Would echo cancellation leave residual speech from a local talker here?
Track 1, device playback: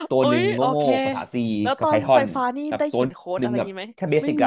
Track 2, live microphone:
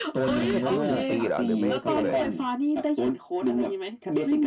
Yes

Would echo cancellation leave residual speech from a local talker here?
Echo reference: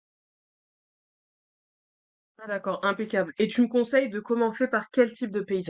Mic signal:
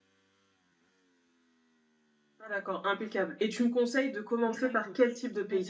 Yes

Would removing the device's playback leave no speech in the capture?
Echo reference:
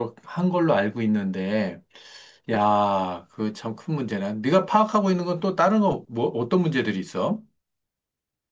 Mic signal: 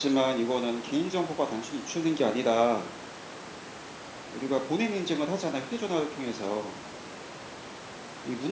No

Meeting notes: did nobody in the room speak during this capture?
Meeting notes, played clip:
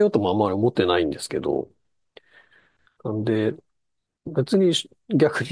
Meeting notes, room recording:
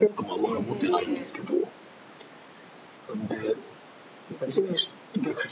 No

